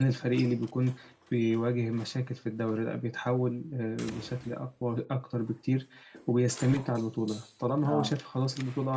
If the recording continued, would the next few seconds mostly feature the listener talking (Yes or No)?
No